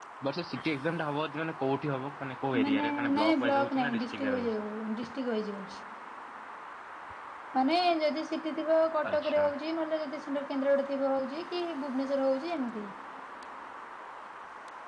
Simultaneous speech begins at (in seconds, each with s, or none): 2.6 s